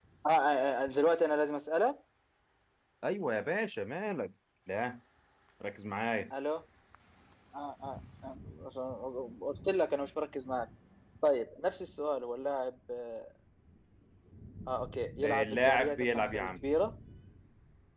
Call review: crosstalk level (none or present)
present